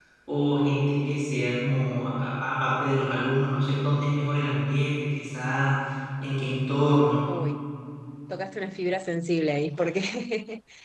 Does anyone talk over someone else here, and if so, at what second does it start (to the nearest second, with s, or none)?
none